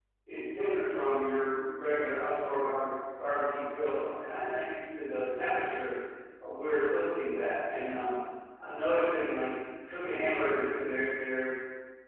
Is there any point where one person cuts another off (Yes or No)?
No